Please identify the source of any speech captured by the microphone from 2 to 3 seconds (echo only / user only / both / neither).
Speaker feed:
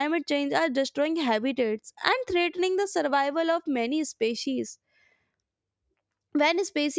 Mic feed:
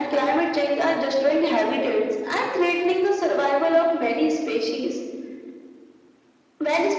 echo only